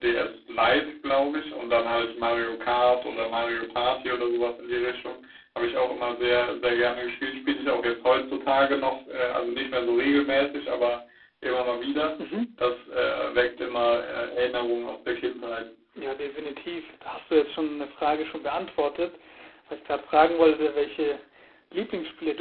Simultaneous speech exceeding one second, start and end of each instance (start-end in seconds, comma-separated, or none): none